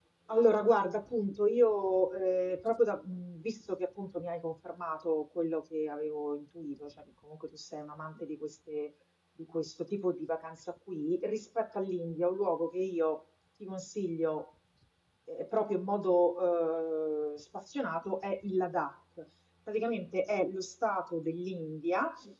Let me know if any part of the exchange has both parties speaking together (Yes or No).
No